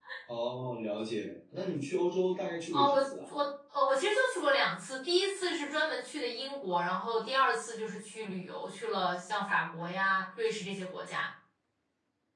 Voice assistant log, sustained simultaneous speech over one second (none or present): none